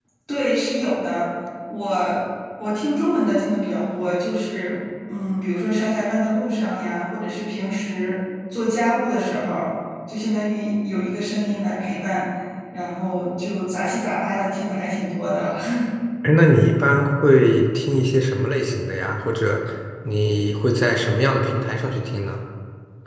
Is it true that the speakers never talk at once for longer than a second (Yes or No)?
Yes